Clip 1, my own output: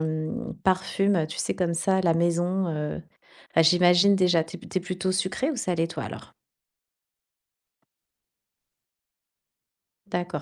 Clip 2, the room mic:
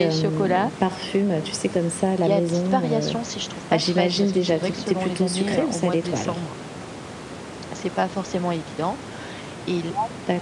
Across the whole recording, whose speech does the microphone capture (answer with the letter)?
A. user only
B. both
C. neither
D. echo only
B